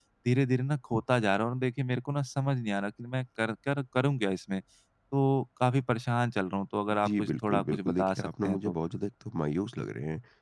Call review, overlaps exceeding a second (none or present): present